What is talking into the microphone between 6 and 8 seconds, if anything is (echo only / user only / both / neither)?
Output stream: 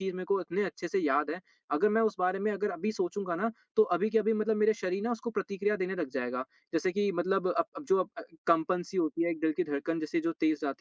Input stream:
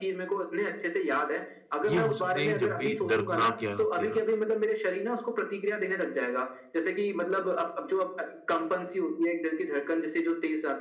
echo only